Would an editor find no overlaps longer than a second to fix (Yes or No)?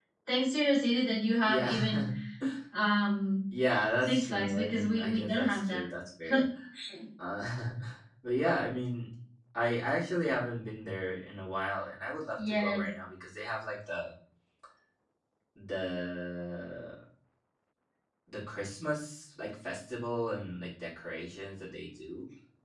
No